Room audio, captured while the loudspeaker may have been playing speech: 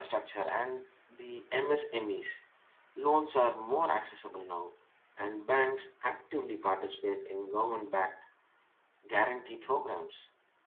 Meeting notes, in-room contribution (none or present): none